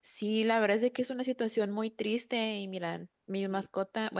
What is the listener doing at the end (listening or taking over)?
listening